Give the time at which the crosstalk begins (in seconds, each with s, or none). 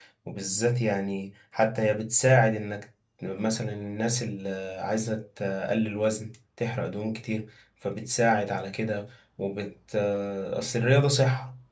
none